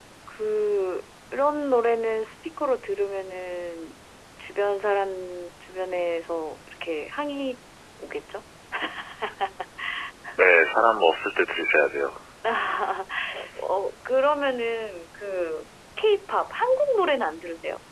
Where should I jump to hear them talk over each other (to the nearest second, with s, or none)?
none